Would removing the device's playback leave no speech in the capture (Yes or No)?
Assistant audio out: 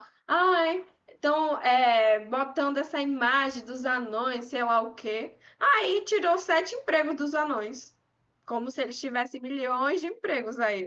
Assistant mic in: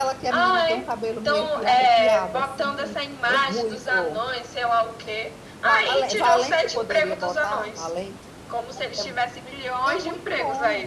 No